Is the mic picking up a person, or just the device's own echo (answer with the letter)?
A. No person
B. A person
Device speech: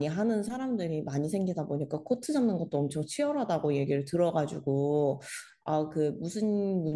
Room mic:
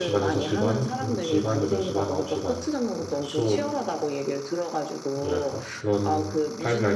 B